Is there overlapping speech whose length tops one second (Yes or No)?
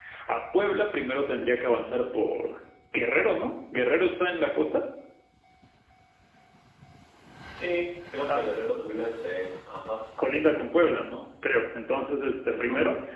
No